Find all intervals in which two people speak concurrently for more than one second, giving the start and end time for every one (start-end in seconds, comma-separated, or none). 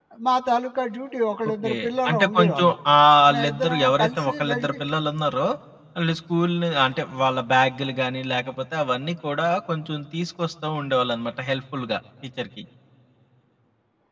1.5-2.8, 3.3-4.8